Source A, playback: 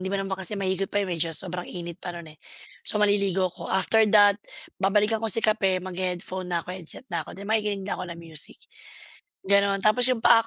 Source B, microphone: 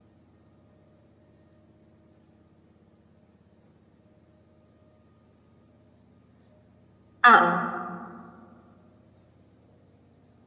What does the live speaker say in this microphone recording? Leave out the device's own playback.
Oo.

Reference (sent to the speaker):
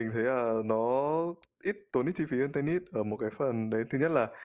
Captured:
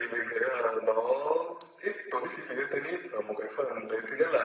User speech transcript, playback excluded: none

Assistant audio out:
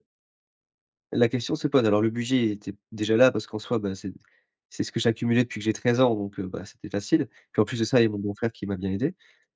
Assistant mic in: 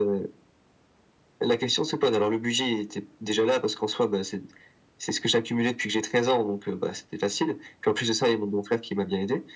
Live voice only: none

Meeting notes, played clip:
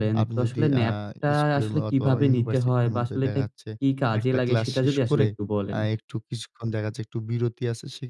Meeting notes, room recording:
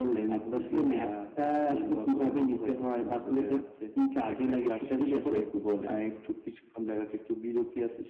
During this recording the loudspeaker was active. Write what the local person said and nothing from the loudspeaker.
none

